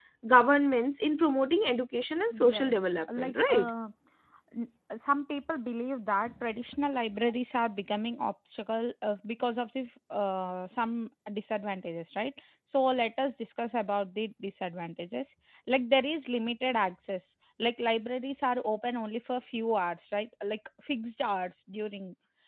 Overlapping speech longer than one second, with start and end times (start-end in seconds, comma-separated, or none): 2.3-3.7